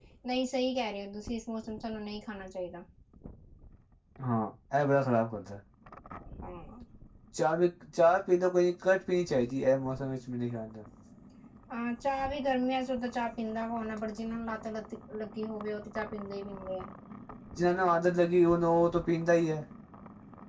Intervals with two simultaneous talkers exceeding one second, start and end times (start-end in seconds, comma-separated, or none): none